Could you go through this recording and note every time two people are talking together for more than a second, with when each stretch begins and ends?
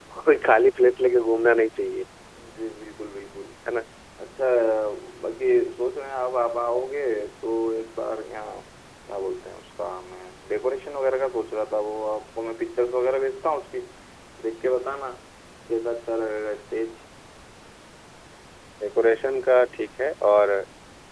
none

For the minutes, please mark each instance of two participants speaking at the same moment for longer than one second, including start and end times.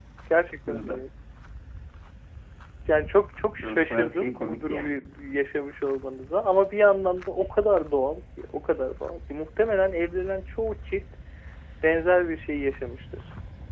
3.6-5.0

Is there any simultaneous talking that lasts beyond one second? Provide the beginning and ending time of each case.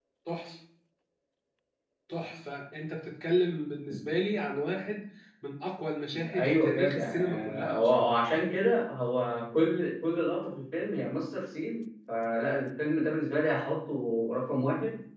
6.4-8.1

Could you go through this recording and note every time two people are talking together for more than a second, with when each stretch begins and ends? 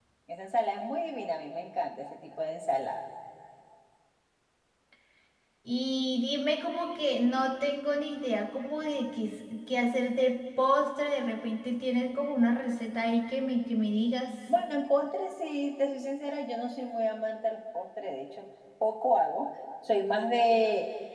none

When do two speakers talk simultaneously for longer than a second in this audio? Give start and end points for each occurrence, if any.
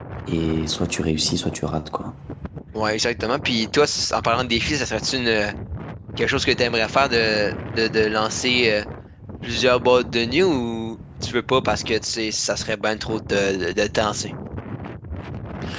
none

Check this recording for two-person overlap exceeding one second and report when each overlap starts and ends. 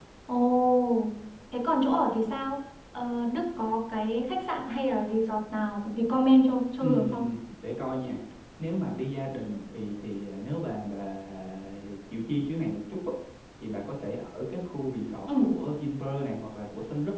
none

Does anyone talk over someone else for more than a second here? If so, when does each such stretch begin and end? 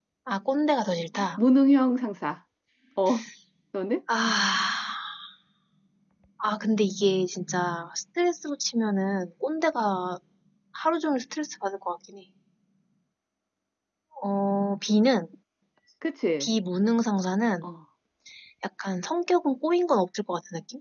none

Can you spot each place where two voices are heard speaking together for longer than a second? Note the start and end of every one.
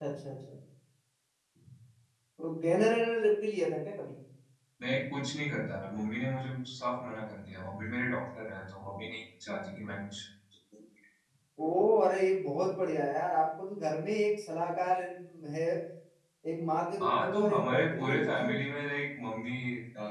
17.0-18.6

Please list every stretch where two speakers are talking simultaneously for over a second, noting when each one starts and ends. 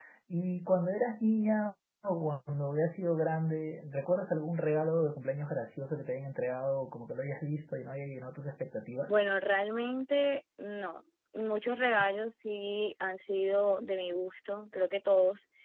none

